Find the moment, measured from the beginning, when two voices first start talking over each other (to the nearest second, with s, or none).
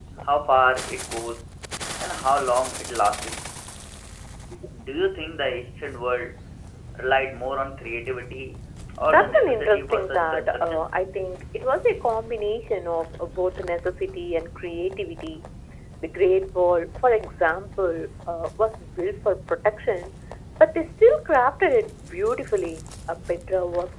9 s